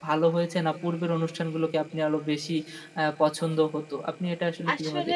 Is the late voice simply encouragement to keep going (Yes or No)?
No